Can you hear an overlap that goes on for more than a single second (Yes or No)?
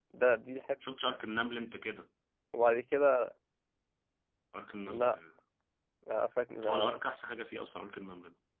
No